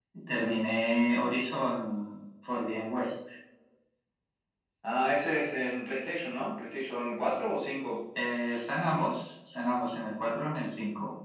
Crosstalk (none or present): none